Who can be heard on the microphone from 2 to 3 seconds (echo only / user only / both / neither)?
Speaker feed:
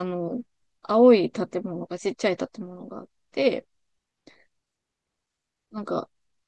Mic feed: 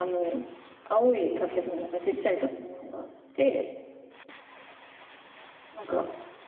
echo only